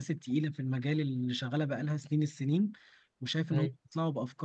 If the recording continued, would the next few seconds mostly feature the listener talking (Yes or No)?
No